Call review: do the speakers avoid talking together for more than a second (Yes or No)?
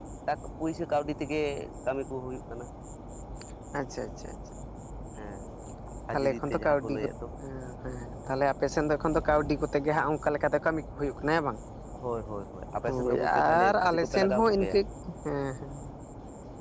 No